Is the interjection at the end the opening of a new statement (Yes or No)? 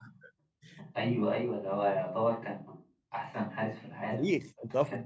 Yes